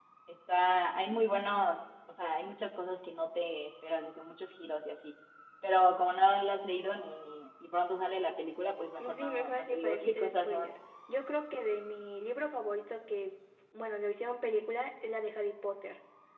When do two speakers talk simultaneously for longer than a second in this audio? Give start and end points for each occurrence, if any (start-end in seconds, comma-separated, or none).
9.0-10.7